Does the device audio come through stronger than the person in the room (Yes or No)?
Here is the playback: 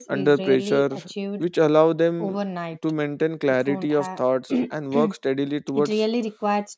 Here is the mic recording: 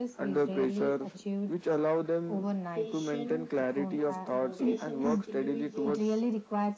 Yes